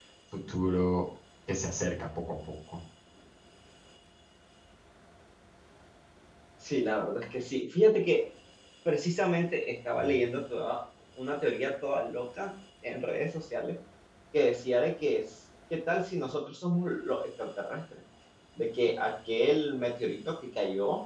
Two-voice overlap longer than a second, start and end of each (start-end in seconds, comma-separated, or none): none